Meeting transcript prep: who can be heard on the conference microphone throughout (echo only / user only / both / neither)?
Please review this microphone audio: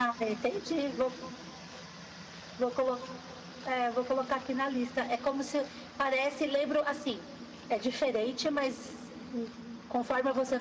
echo only